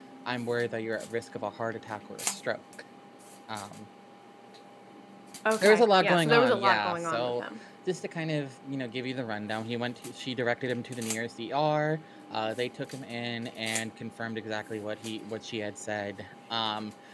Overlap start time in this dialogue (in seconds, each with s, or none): 5.6 s